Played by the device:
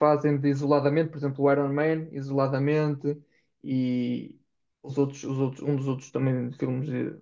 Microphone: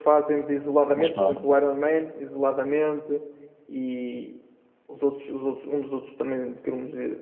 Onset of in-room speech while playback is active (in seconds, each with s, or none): 0.9 s